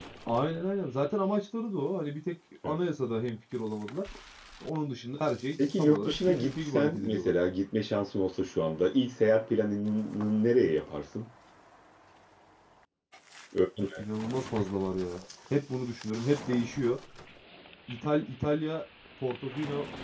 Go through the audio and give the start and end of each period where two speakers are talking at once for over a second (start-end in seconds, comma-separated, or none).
5.8-7.3